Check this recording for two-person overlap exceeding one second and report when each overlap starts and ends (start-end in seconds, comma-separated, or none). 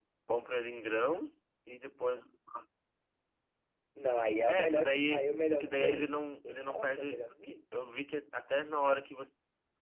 4.5-7.6